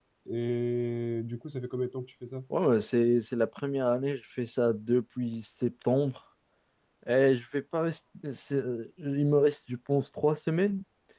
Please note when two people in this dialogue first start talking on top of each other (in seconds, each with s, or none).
none